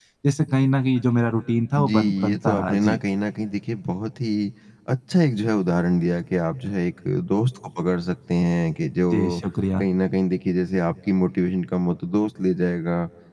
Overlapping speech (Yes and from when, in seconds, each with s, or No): Yes, from 1.8 s